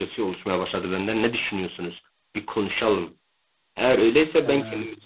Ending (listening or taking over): listening